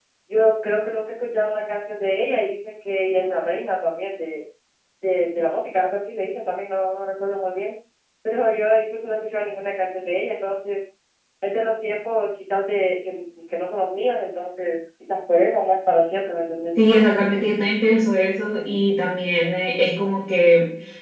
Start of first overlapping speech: none

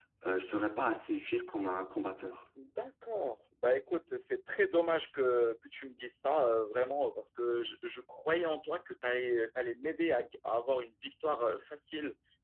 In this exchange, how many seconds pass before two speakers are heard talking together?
none

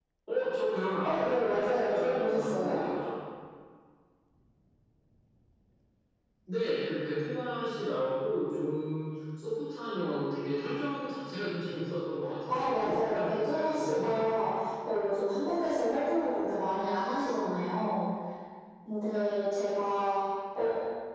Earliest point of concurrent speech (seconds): 1.0 s

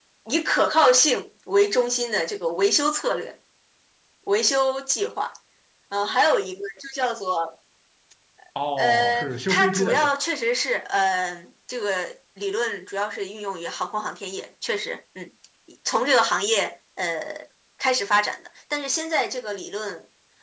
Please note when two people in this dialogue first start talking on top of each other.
8.8 s

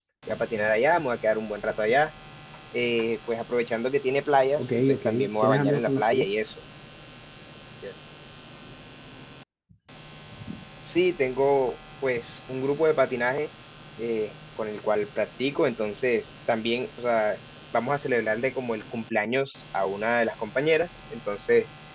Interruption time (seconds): 4.6 s

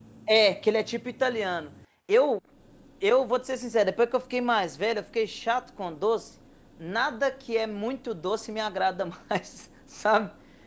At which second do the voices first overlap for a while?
none

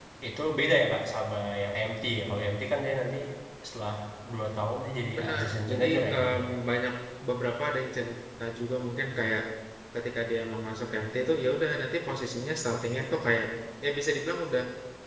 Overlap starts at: 5.2 s

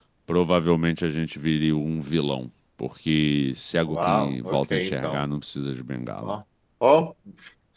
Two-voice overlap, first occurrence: 3.9 s

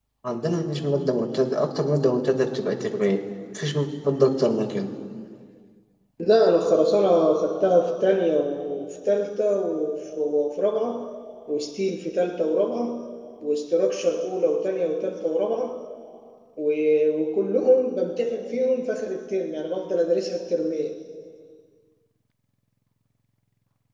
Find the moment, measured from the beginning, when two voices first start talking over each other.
none

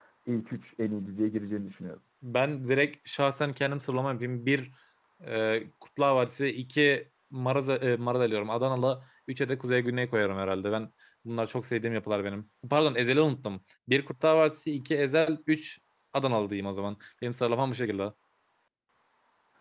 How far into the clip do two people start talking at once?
none

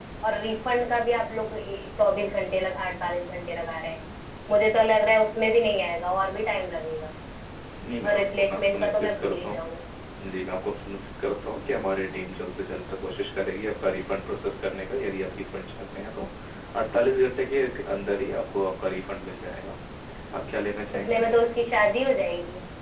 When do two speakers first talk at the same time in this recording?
8.0 s

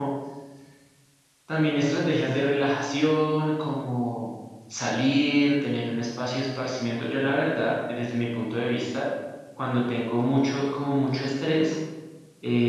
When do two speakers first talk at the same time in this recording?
none

